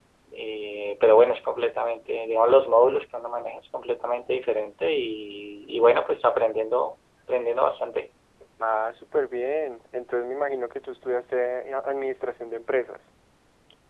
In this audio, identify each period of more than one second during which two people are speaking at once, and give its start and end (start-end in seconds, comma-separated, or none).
none